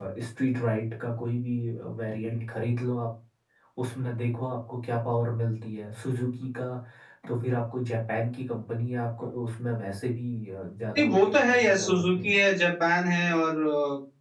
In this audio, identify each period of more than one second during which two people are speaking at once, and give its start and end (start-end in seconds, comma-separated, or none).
11.0-12.5